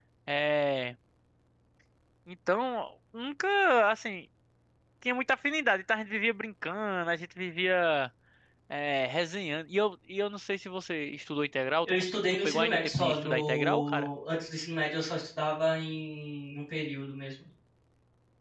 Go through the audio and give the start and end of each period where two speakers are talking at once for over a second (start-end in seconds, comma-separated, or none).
11.8-14.1